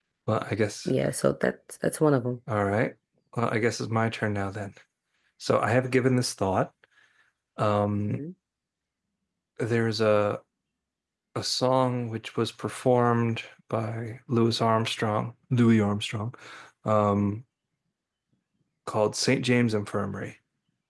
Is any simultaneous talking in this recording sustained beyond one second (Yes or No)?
No